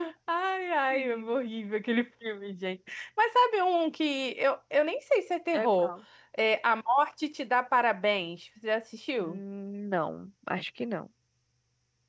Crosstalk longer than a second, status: none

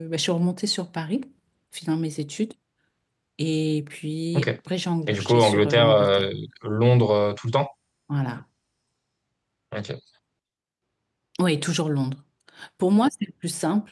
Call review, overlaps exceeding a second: present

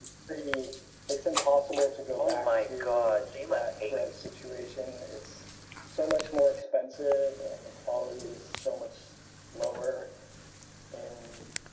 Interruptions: present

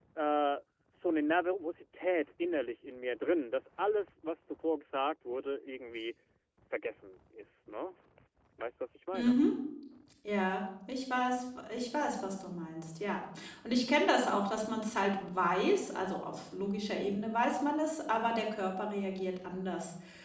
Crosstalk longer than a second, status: none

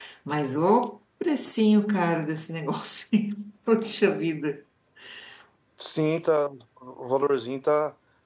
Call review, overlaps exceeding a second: none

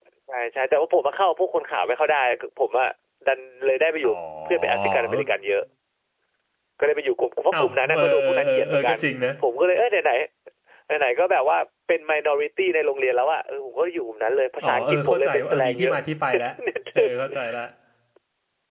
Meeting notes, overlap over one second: present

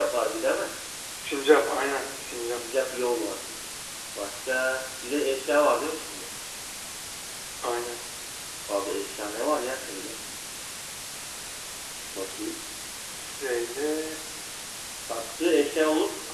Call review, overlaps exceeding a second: none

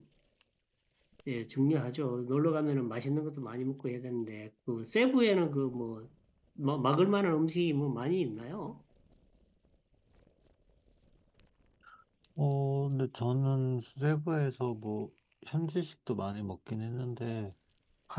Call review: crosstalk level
none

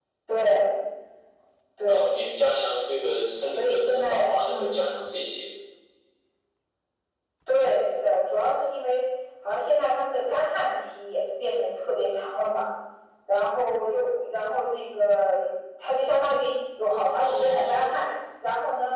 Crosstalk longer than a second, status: present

